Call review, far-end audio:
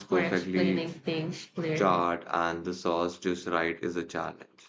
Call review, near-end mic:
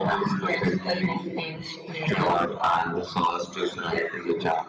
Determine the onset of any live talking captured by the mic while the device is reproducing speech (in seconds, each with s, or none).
none